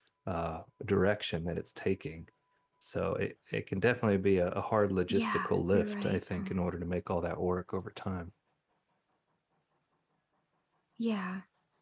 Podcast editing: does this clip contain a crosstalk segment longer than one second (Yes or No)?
Yes